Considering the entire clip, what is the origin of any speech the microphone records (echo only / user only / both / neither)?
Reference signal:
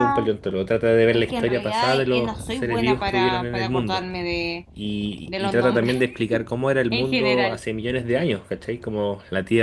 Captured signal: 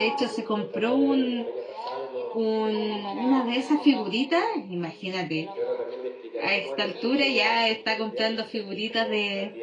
both